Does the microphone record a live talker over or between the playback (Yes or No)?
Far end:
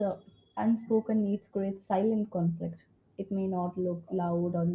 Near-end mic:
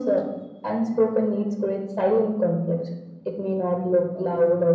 No